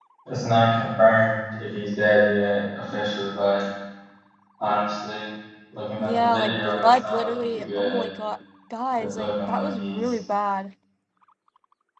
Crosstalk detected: Yes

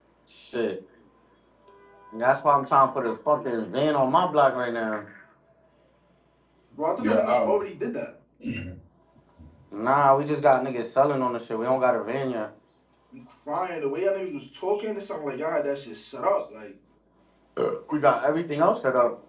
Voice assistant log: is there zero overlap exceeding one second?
Yes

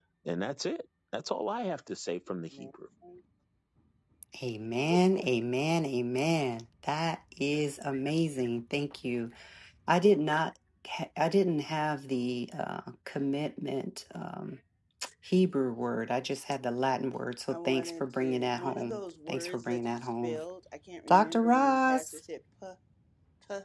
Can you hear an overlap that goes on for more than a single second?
Yes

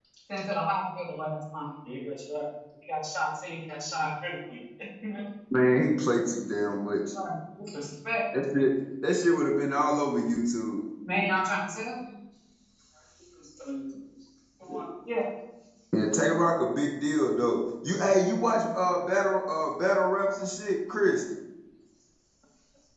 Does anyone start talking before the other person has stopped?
No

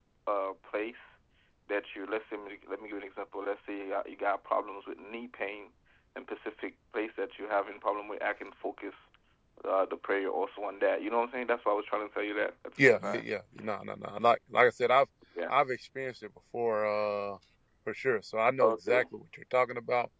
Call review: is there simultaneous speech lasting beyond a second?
No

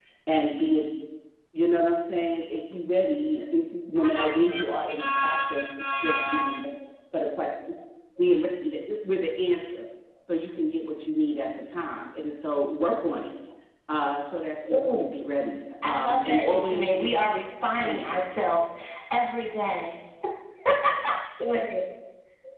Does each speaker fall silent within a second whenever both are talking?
No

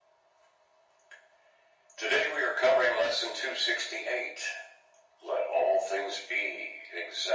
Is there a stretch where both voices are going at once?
No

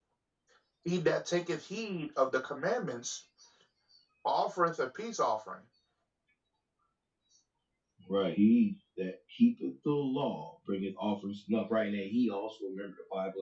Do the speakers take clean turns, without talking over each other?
Yes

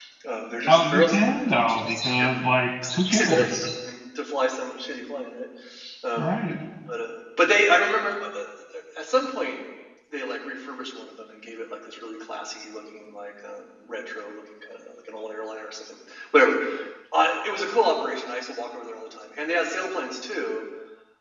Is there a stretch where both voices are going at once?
Yes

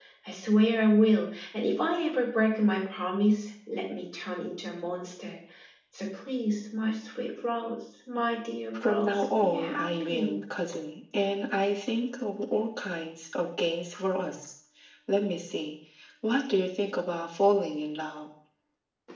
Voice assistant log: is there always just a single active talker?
No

